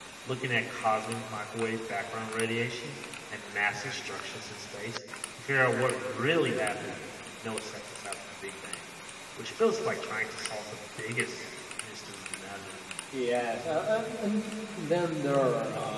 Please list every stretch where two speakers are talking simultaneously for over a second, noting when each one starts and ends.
none

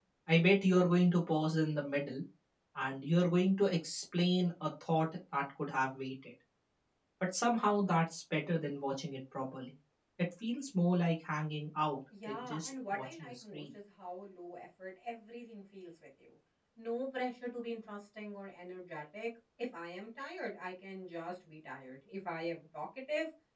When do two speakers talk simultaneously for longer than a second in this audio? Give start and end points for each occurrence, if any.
12.3-13.6

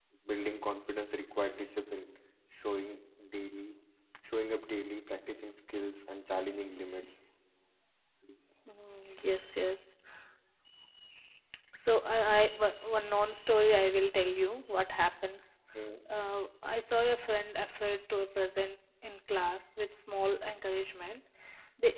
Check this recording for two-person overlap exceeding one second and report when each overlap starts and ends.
none

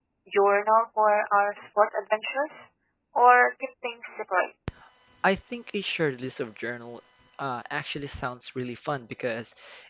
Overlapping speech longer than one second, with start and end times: none

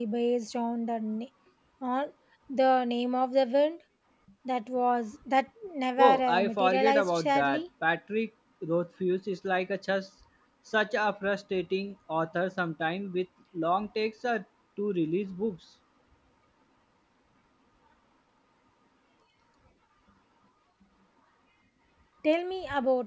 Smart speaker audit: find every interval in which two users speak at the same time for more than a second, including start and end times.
6.0-7.6

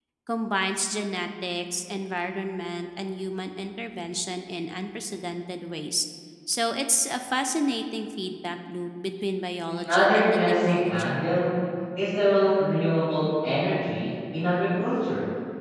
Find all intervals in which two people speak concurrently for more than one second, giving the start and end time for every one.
9.9-11.1

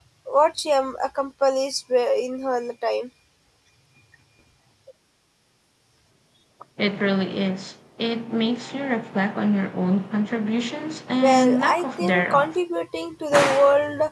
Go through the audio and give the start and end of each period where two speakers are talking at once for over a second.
11.2-12.6

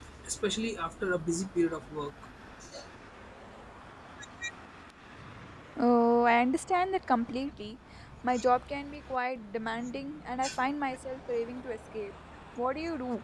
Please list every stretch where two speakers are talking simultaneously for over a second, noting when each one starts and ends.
none

